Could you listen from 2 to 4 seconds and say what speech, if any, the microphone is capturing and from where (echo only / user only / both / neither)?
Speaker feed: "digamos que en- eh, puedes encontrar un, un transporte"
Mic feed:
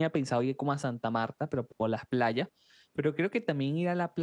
user only